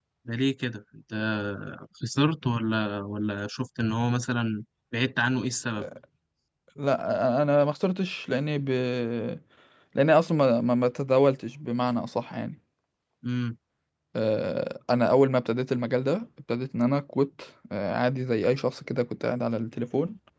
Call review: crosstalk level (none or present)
none